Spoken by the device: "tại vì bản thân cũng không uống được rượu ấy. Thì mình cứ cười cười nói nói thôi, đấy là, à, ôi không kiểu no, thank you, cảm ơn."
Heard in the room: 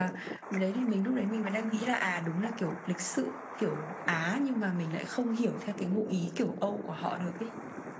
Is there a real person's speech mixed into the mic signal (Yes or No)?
Yes